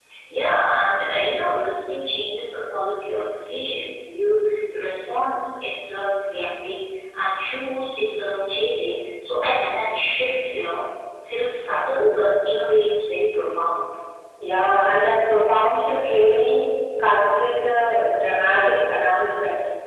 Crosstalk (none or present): none